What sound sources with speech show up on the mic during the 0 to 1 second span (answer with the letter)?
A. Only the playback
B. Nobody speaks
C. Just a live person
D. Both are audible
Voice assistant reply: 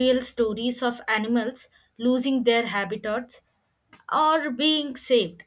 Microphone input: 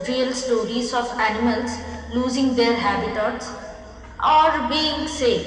A